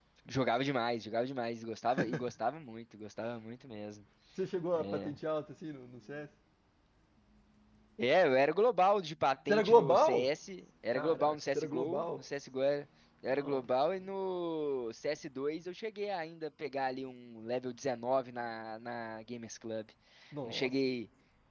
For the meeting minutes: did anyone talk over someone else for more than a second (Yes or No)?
Yes